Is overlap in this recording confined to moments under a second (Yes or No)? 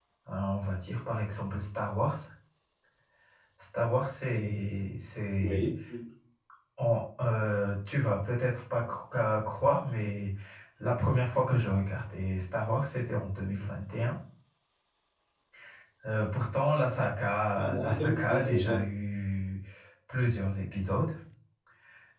No